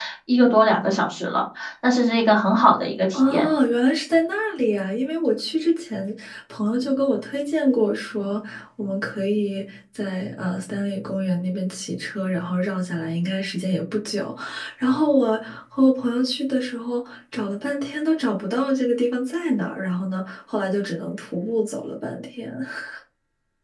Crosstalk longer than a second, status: none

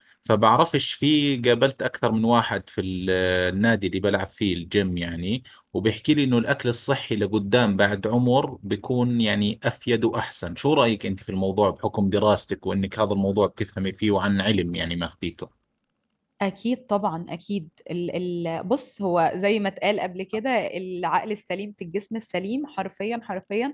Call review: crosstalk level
none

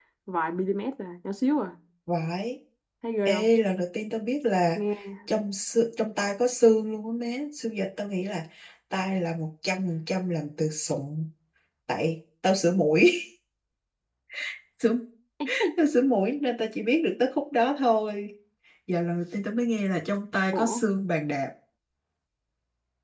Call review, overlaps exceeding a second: none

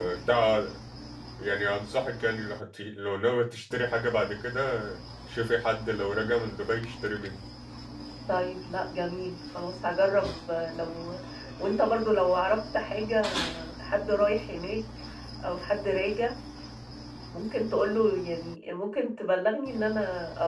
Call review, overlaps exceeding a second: none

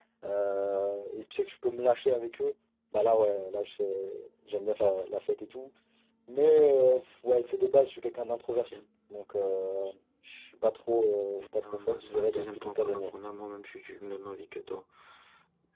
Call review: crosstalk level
present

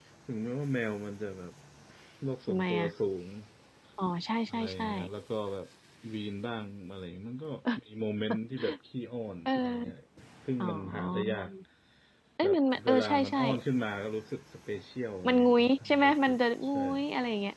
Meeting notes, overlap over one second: present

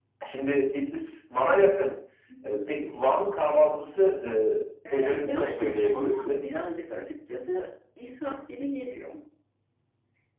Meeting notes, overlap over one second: present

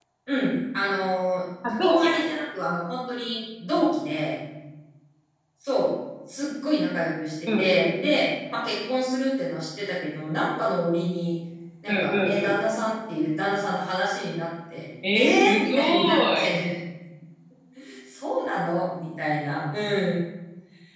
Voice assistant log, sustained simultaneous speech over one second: present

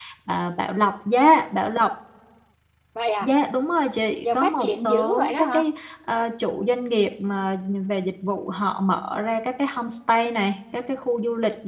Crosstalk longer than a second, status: present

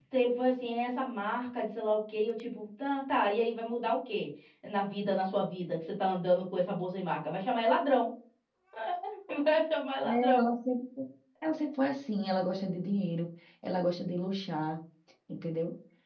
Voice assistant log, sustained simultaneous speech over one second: none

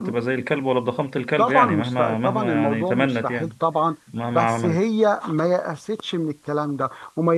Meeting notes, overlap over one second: present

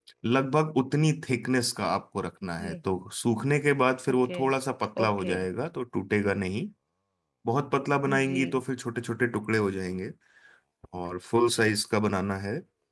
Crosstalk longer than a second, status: none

